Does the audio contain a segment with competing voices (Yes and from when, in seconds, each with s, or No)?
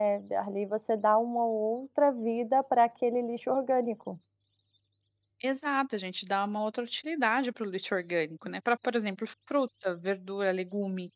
No